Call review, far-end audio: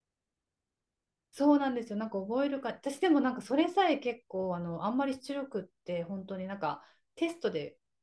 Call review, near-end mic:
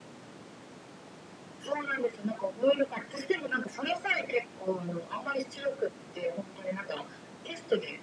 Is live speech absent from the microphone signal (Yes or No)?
Yes